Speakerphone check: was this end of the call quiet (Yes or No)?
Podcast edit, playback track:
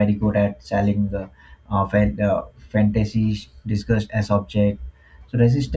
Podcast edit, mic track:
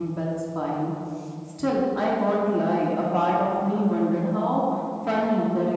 No